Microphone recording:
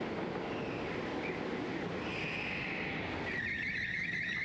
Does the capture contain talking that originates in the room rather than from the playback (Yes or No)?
No